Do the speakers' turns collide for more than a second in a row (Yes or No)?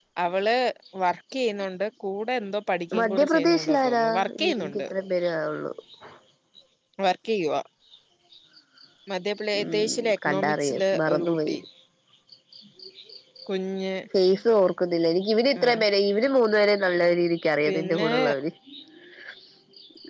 Yes